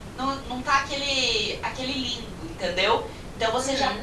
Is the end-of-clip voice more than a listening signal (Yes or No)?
No